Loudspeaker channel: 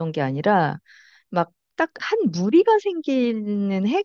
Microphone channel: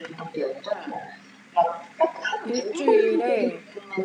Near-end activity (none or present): present